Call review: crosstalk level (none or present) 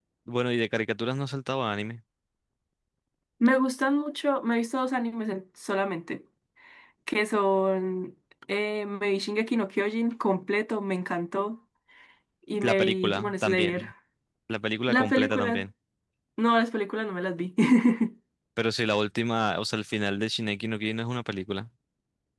present